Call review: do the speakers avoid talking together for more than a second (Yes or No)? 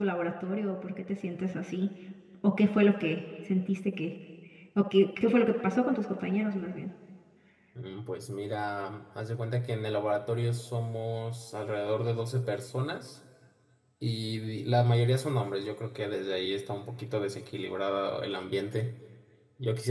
Yes